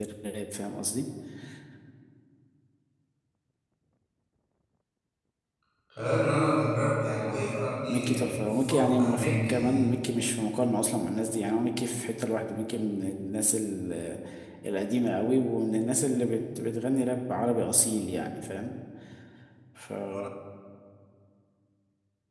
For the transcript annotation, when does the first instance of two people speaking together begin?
8 s

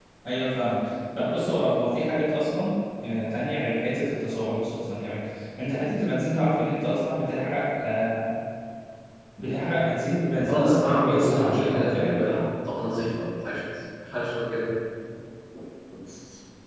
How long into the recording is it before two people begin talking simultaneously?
10 s

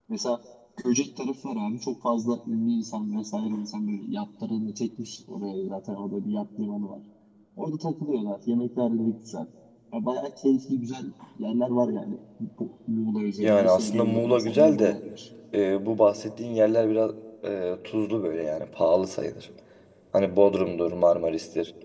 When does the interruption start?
13 s

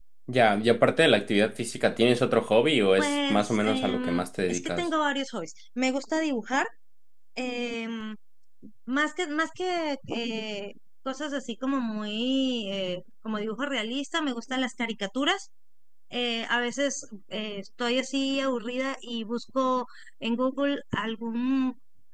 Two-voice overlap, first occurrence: 3 s

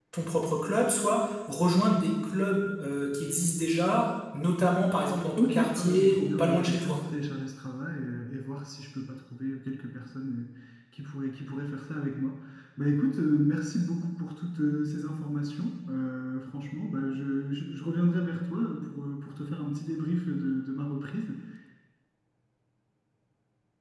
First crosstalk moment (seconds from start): 5 s

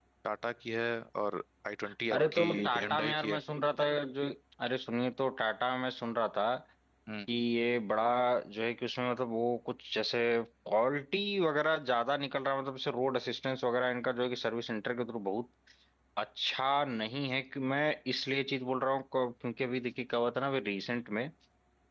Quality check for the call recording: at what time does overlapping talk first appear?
2 s

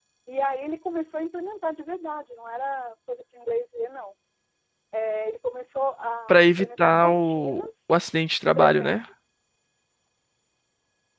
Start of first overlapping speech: 6 s

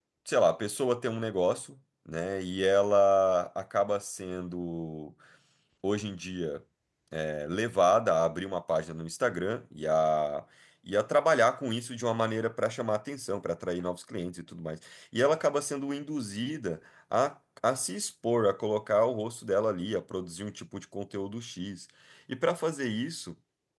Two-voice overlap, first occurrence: none

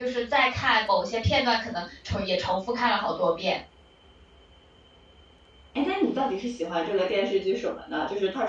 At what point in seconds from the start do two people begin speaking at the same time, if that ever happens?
none

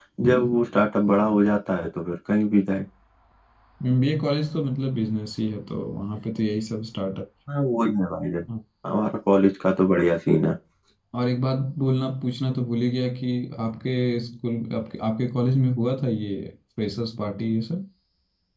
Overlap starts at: none

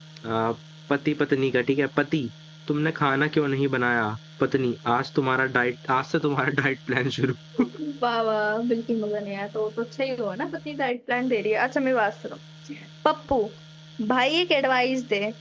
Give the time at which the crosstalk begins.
none

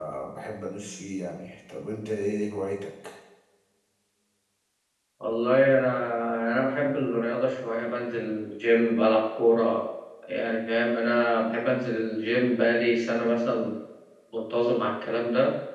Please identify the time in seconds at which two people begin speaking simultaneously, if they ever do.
none

